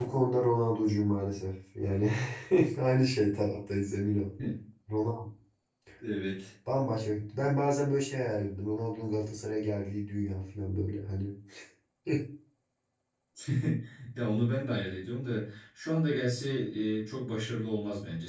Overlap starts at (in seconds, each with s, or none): none